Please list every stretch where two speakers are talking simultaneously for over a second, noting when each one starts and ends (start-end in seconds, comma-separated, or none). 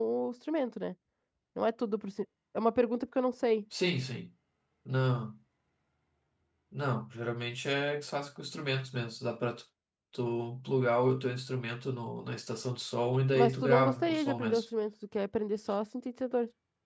13.3-14.7